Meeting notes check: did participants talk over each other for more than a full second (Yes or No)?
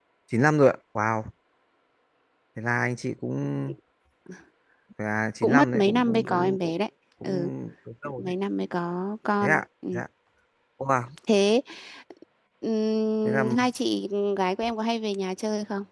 Yes